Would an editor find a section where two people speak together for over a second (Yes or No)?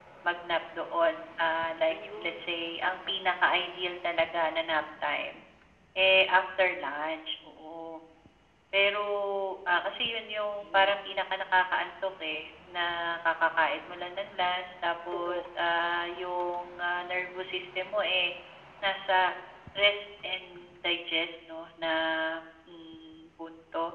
No